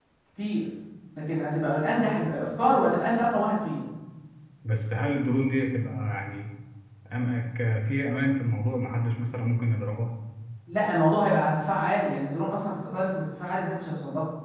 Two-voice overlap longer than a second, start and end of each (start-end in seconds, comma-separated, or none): none